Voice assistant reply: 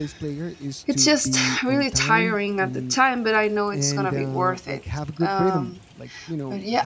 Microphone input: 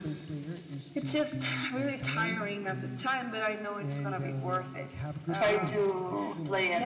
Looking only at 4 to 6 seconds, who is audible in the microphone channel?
both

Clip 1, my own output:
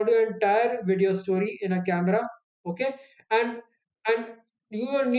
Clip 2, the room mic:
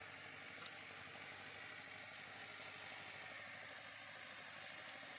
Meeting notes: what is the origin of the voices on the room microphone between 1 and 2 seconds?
neither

